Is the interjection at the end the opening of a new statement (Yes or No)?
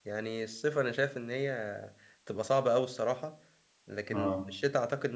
No